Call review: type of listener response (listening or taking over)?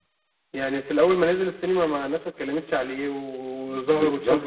taking over